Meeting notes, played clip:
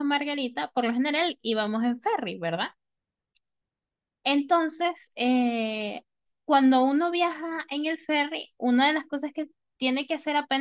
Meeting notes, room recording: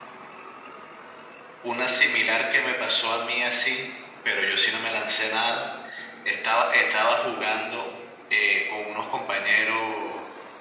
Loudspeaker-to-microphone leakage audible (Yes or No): No